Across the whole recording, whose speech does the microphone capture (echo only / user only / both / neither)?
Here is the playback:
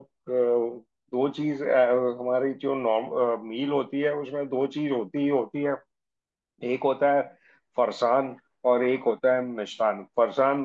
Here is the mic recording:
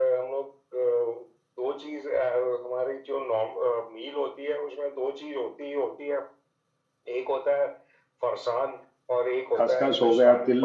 both